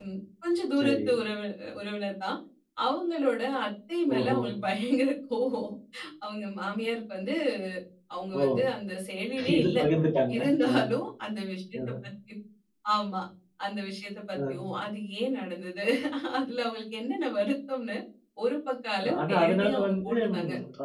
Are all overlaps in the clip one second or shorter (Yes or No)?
No